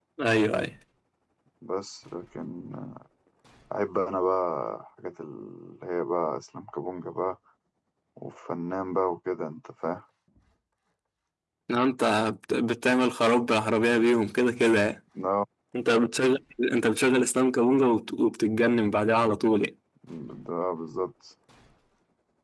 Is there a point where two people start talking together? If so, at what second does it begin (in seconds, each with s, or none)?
none